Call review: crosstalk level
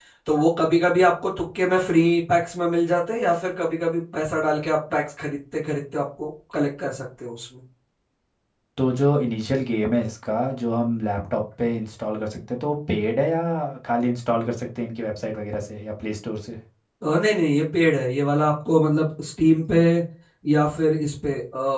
none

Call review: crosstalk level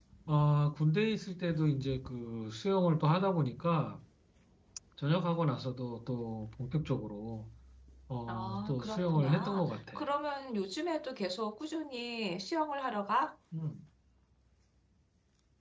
present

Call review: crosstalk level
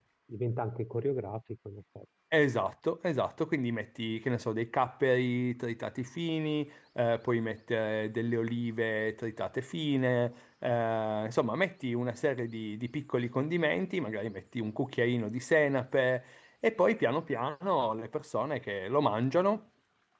none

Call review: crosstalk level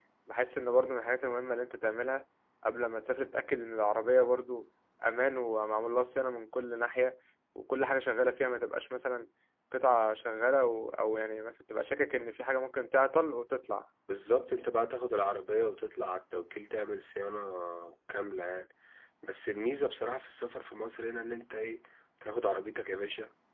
none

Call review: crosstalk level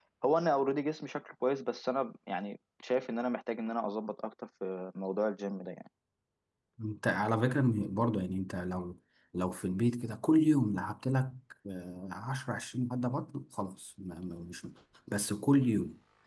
none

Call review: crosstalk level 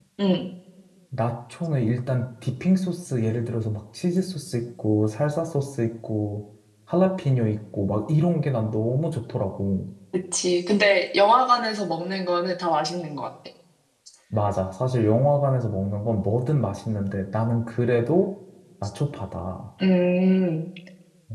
none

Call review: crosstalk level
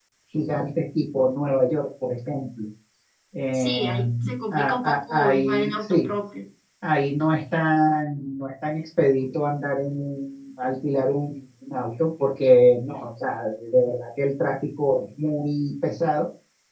present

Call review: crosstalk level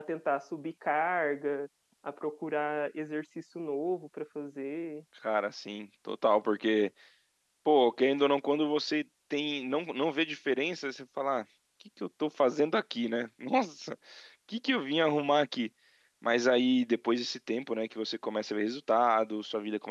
none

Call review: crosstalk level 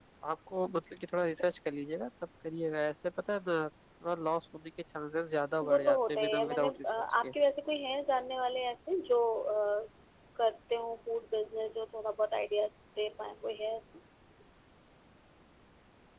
present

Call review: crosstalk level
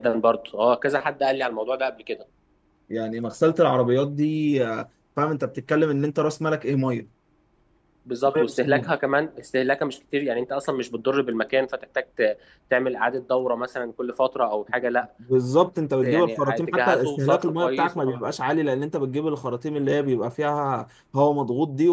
present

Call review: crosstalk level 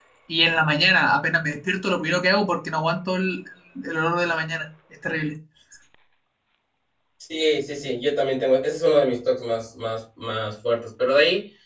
none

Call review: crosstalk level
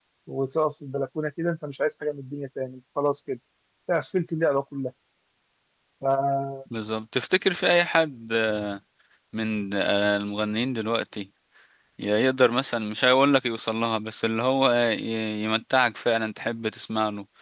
none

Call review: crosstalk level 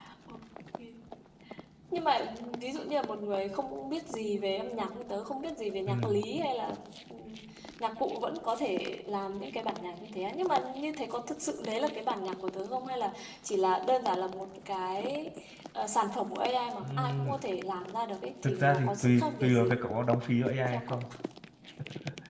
present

